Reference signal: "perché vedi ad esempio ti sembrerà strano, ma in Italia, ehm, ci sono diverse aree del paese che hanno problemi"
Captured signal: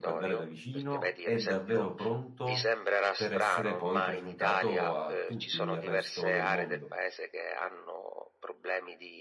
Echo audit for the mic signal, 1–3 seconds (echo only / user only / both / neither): both